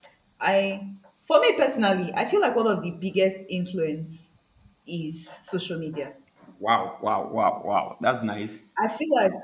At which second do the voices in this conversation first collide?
none

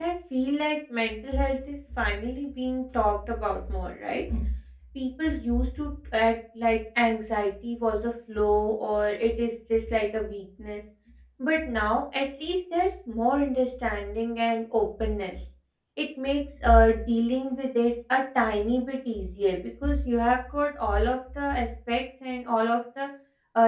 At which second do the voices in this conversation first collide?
none

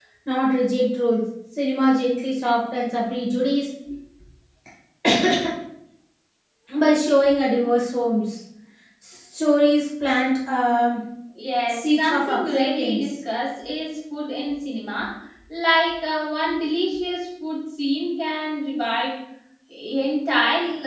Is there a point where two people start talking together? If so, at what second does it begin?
11.7 s

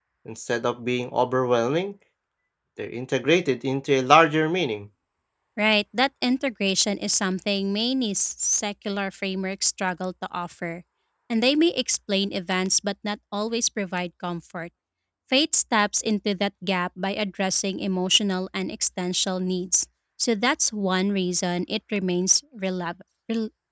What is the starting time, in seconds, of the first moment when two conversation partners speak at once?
none

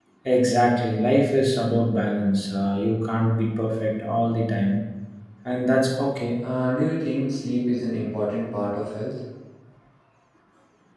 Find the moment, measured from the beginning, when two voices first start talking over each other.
none

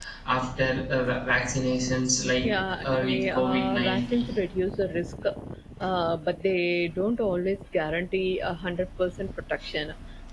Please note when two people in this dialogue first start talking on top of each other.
2.4 s

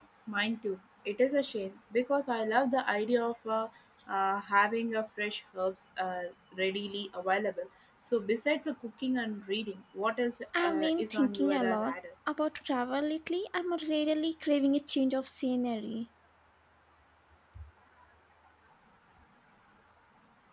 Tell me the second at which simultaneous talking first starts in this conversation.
10.5 s

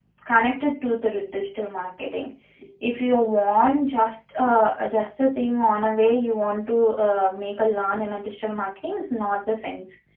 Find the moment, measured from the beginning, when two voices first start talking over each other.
none

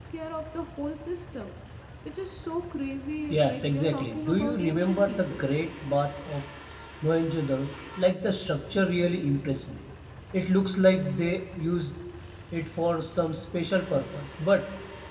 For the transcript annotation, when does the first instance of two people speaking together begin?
3.3 s

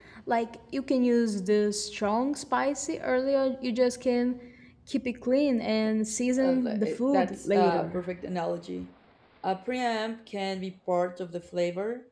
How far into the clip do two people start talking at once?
6.4 s

